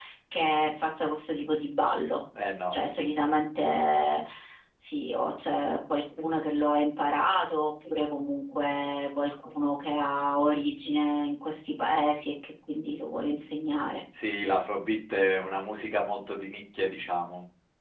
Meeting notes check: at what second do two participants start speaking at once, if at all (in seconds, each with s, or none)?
none